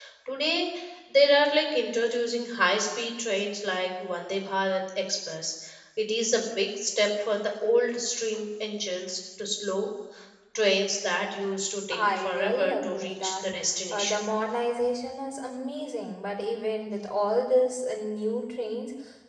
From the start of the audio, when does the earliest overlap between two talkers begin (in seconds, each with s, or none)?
11.9 s